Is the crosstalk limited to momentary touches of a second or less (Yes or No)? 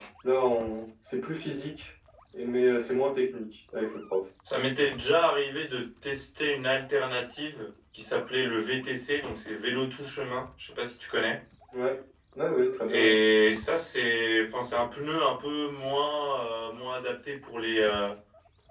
Yes